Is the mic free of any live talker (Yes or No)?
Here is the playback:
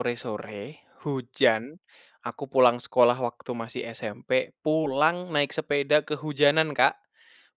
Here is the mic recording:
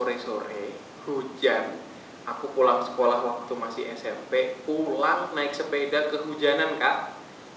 Yes